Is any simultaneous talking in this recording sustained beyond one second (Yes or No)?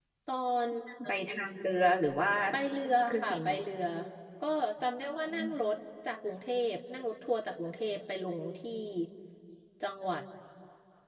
No